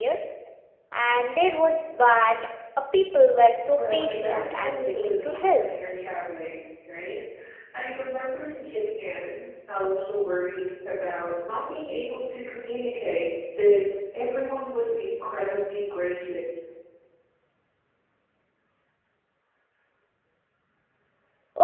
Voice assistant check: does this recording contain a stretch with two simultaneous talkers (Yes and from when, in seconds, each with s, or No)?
Yes, from 3.8 s